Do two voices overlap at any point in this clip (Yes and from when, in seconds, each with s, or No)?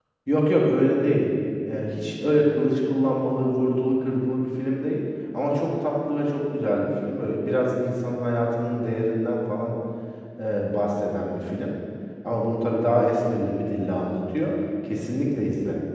No